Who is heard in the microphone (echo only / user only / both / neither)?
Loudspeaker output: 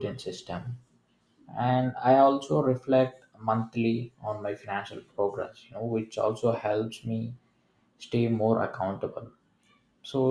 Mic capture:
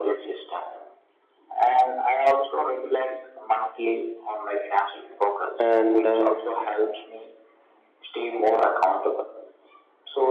both